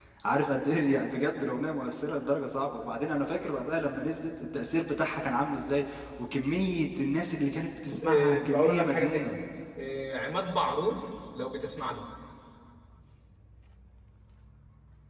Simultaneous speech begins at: 8 s

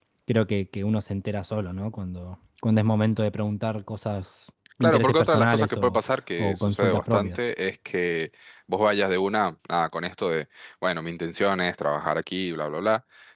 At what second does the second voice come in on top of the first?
5 s

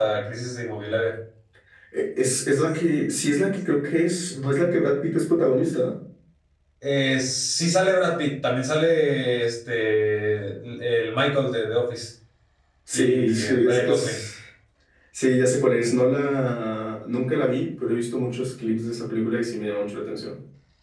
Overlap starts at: 13 s

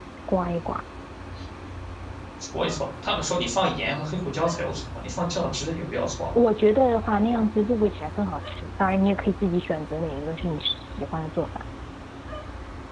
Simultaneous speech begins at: none

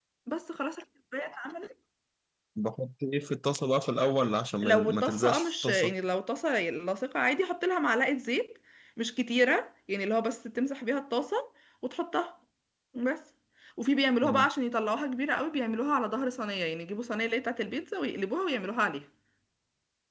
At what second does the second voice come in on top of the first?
5 s

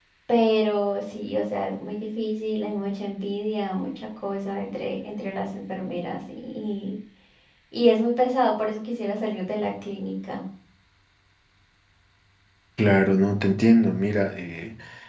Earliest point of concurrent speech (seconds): none

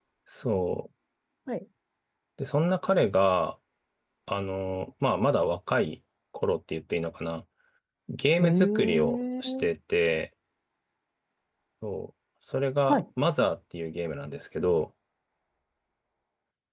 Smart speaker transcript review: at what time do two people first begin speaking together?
8 s

